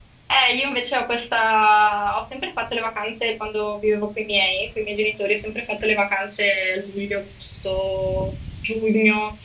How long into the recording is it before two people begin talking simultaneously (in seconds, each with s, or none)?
none